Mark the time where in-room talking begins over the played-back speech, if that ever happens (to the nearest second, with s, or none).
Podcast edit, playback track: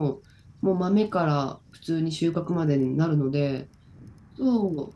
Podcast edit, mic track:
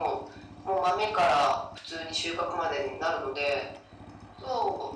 none